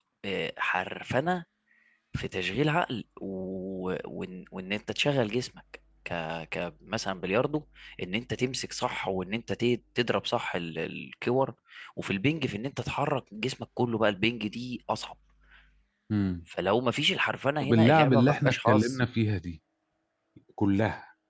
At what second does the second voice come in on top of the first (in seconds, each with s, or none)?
17.6 s